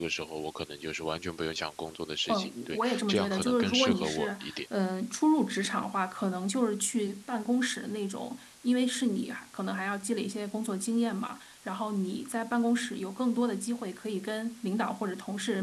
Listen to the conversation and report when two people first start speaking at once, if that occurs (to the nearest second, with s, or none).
2 s